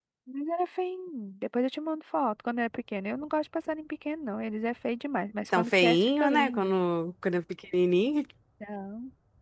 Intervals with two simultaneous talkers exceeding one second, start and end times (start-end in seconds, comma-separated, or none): 5.5-6.7